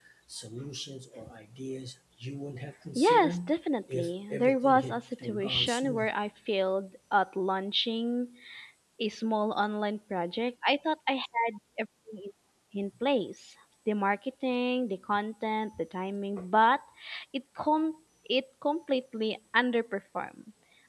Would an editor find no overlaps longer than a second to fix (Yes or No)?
No